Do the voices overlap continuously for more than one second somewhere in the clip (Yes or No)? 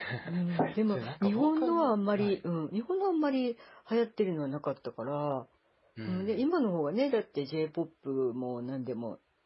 Yes